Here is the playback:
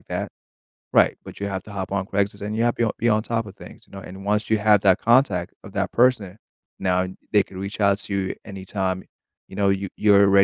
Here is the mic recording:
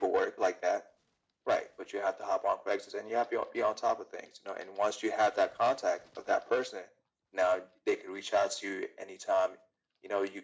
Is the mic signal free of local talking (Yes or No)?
Yes